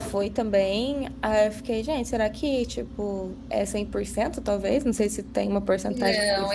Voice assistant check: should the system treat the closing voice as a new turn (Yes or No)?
Yes